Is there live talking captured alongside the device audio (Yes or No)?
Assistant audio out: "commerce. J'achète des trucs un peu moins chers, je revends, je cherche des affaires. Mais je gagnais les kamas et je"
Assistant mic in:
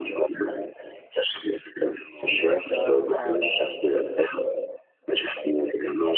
Yes